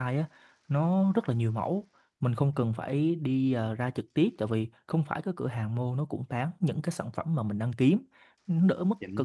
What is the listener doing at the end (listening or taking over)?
listening